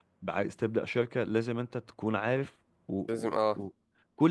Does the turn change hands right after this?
No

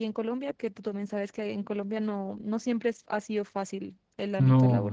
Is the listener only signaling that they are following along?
No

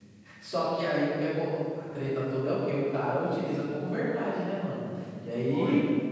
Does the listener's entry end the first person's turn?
No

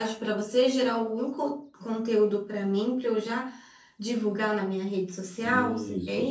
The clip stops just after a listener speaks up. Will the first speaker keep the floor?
No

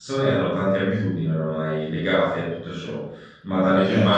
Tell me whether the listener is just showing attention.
No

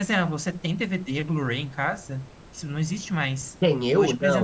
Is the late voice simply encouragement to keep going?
No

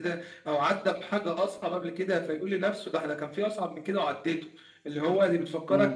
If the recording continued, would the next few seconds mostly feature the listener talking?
No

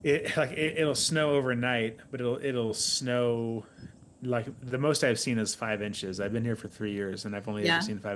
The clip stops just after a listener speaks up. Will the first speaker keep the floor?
Yes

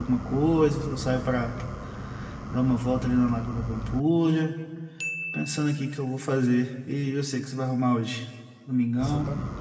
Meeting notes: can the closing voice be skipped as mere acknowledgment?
No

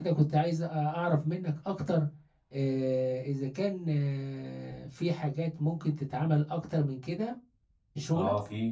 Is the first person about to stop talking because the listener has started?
Yes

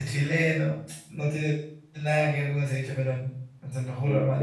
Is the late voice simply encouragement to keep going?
Yes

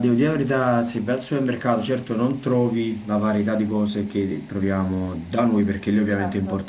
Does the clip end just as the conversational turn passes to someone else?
No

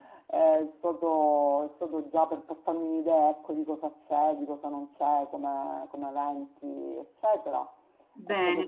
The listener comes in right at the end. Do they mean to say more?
Yes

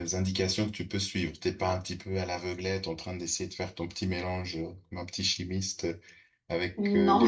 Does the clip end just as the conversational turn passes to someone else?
No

